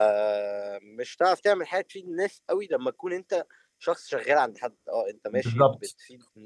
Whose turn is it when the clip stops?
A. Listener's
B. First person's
B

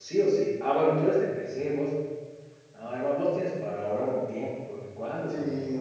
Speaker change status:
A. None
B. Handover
B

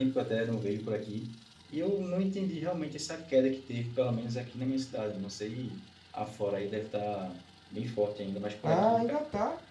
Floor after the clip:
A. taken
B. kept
A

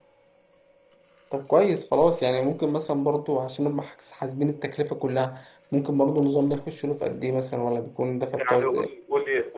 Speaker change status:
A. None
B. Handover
B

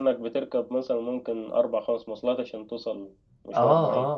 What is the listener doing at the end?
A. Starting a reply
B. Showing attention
A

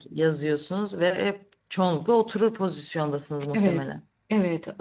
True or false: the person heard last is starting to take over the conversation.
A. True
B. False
A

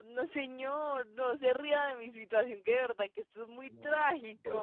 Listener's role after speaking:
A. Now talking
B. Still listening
A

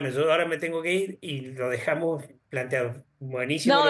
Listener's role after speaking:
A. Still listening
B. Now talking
B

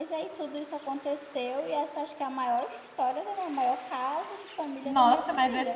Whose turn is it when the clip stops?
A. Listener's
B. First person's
A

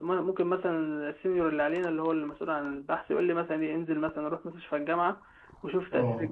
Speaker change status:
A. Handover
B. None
B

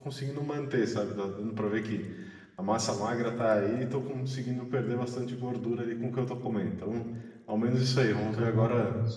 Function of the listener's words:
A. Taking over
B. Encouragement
B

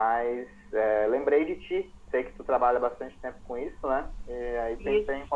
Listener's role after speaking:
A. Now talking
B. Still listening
B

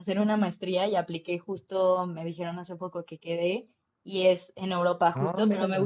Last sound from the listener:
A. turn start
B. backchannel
B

